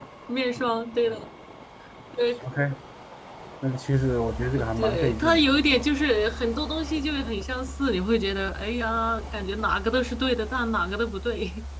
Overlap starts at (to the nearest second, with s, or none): 5 s